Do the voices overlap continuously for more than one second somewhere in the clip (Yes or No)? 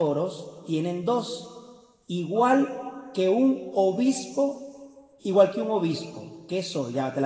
No